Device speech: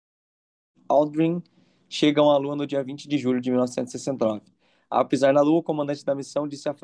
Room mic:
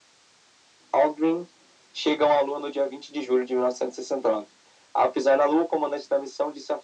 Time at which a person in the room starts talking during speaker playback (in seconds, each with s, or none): none